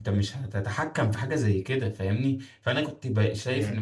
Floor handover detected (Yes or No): No